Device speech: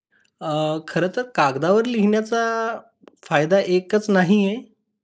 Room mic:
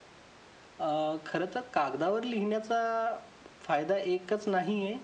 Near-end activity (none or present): none